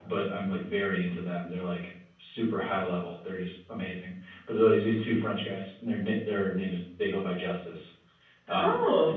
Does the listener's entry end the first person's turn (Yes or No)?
No